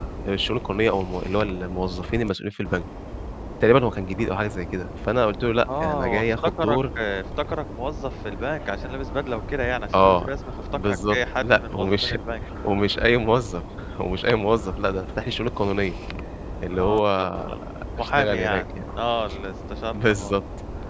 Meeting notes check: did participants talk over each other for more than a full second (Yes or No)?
Yes